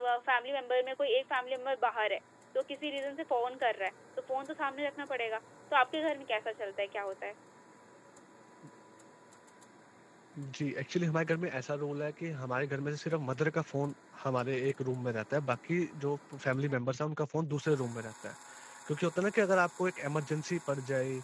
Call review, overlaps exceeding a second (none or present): none